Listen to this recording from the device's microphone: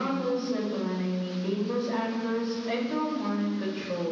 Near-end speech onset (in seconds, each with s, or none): none